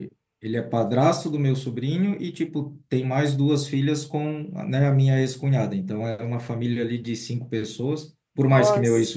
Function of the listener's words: listening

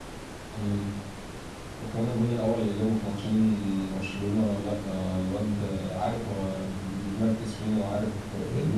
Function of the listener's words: taking over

